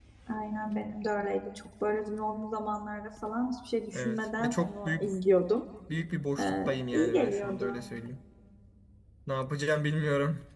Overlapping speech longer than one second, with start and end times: 3.9-5.1, 6.4-7.8

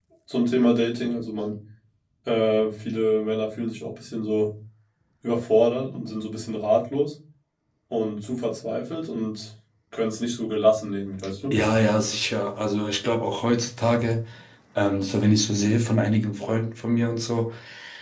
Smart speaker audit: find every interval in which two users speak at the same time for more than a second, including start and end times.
none

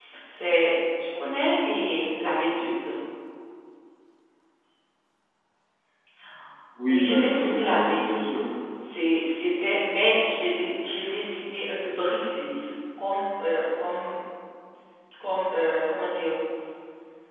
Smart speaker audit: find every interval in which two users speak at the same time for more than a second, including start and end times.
6.9-8.4

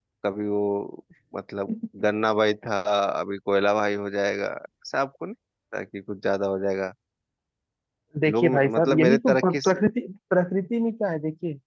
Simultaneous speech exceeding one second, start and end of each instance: 8.3-9.6

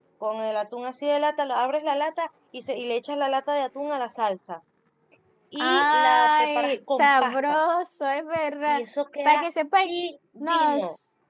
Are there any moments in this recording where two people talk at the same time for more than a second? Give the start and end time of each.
5.5-7.6

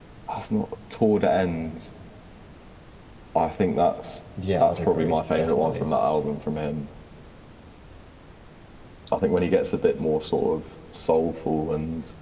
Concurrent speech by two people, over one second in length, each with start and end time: 4.6-5.9

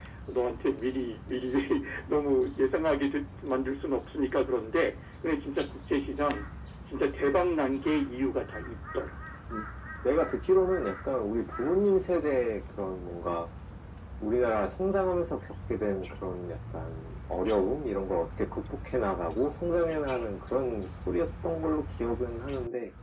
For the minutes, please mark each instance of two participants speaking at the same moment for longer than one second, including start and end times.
none

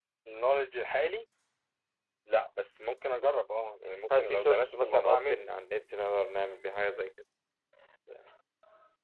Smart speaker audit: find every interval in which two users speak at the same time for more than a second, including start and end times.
4.1-5.4

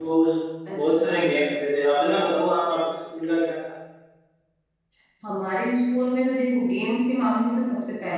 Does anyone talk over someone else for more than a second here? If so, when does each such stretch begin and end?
none

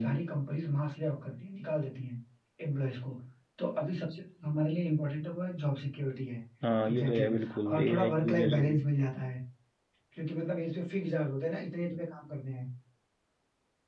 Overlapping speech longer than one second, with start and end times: 6.9-8.8

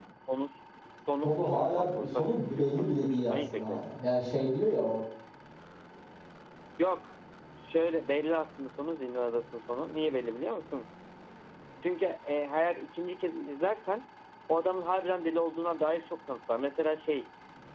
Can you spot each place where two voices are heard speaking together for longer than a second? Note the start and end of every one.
1.2-3.8

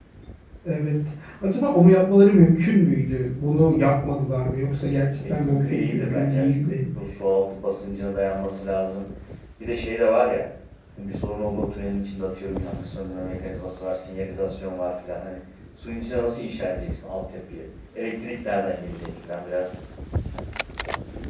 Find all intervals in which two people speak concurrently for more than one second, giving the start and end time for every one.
5.3-6.6

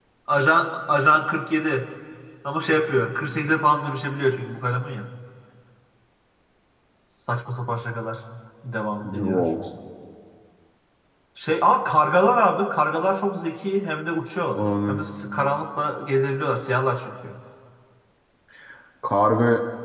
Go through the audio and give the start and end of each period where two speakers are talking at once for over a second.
none

